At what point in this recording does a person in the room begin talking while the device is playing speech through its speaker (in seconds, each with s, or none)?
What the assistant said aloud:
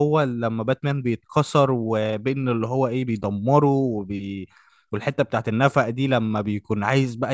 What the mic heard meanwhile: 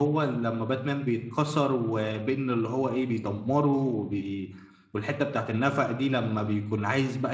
none